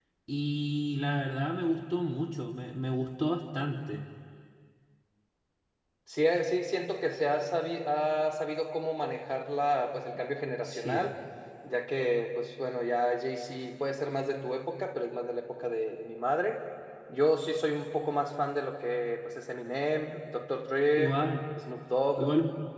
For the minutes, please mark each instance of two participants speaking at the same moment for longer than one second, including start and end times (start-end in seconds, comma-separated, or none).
none